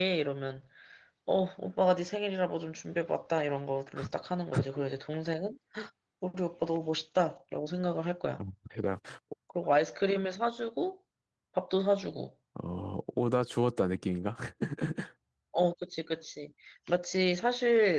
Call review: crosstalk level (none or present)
none